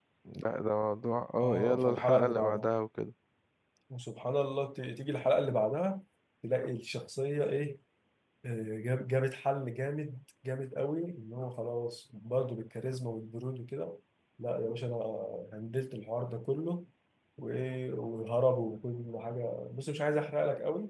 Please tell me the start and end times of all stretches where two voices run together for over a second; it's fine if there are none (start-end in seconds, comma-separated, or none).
1.4-2.7